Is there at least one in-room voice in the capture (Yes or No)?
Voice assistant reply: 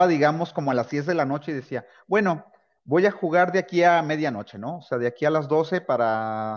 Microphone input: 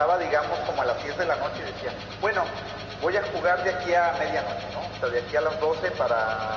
No